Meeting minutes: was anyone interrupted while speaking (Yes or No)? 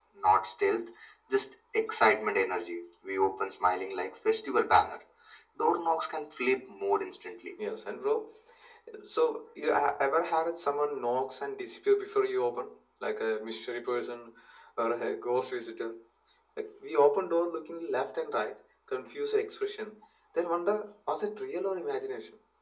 No